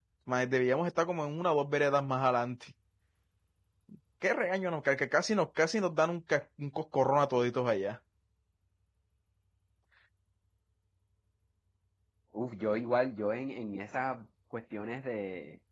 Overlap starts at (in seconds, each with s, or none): none